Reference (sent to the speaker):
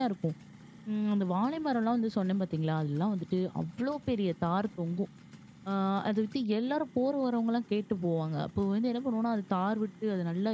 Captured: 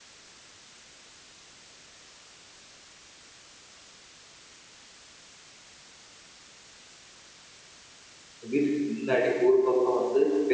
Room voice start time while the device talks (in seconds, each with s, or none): 8.5 s